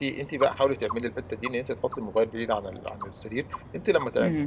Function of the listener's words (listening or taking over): listening